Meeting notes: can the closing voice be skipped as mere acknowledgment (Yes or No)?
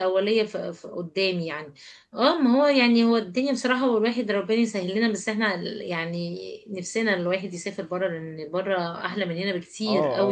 No